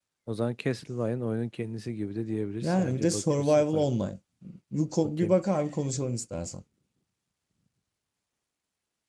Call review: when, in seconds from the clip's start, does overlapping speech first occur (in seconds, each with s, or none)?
2.6 s